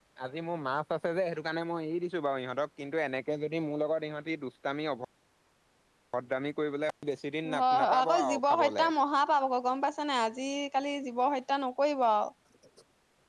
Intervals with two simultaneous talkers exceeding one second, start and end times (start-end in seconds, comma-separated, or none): 7.6-8.9